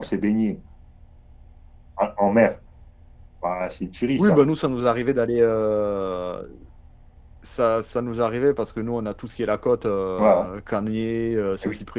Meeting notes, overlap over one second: none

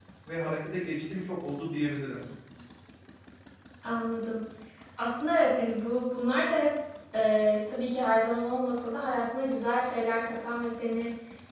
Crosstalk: none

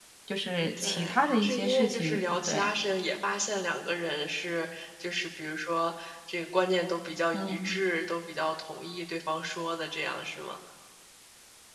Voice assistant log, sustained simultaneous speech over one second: present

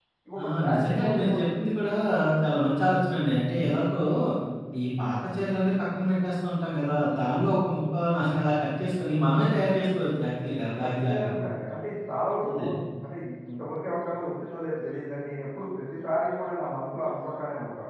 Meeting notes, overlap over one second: present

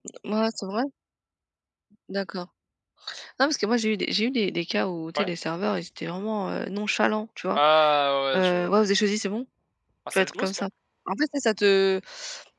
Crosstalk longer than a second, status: none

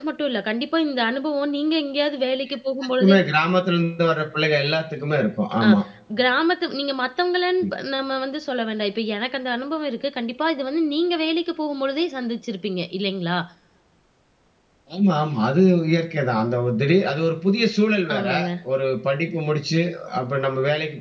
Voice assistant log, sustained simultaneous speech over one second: none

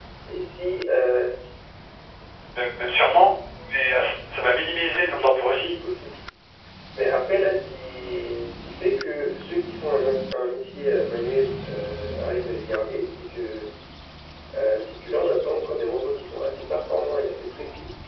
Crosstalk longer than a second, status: none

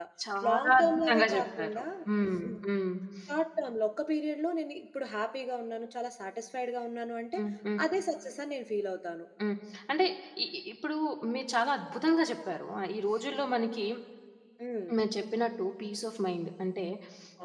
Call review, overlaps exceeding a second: present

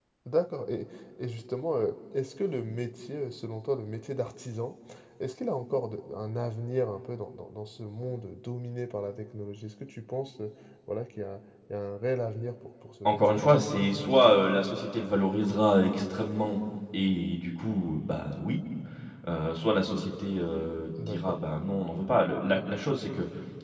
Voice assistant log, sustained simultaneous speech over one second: none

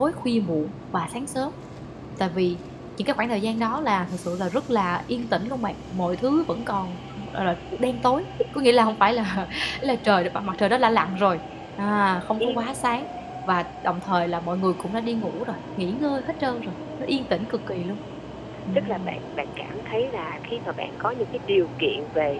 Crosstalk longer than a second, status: none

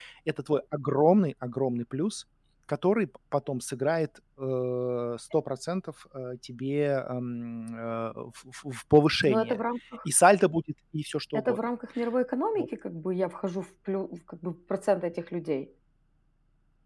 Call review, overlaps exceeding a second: none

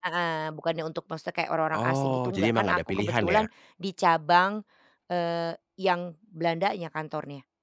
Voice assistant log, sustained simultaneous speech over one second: present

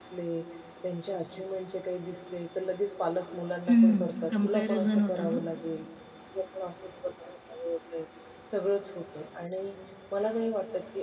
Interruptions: present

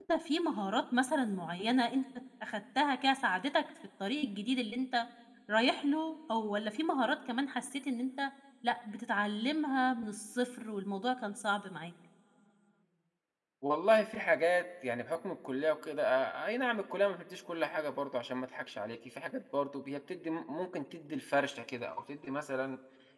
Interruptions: none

